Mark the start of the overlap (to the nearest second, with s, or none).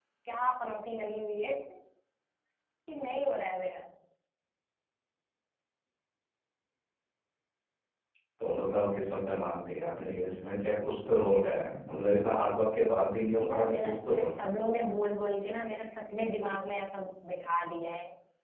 13 s